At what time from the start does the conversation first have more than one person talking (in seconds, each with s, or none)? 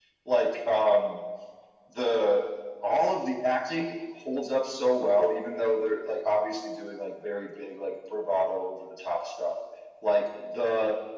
none